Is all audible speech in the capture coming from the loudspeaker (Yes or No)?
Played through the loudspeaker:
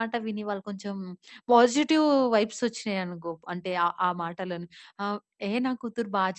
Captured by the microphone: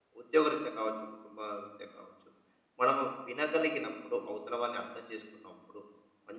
No